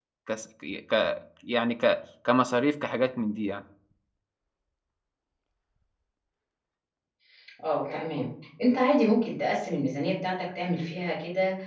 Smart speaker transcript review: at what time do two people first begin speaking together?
none

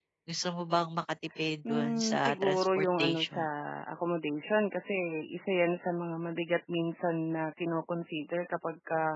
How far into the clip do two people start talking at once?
2 s

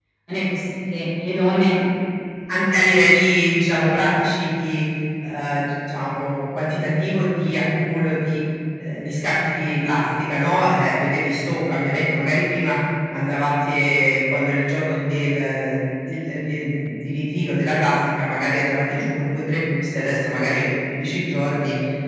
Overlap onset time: none

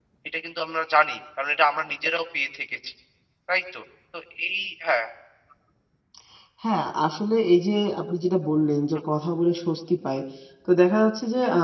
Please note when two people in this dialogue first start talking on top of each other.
none

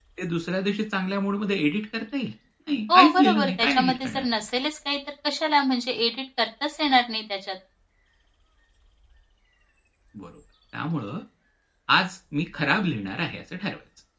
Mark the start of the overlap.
3 s

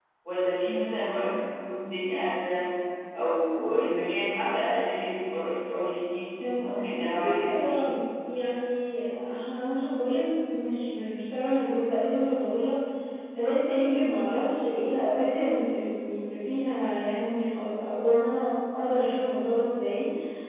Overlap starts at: 6 s

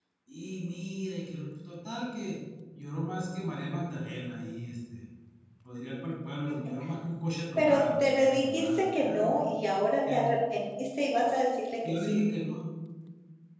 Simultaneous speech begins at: 8 s

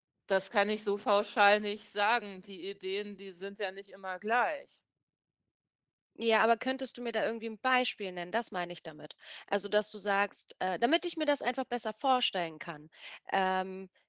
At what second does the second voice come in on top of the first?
none

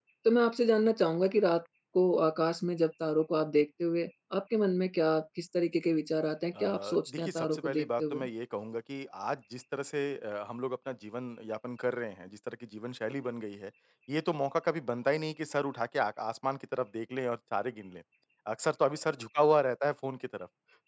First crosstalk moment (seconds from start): 7 s

